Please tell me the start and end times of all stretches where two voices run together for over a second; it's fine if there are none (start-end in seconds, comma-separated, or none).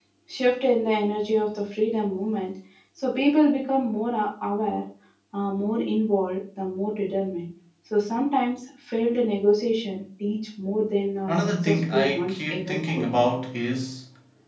11.3-13.1